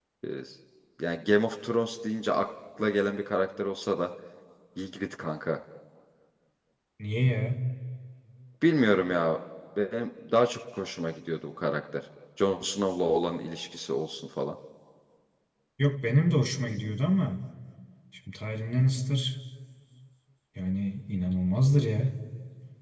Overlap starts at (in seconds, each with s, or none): none